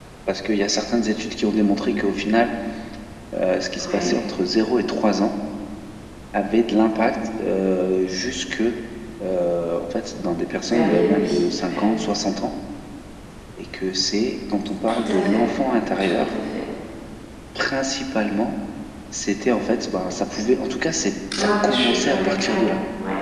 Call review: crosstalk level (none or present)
present